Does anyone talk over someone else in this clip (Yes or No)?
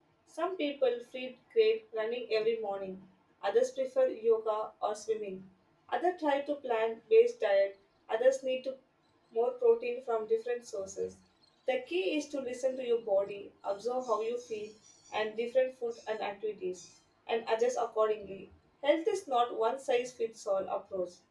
No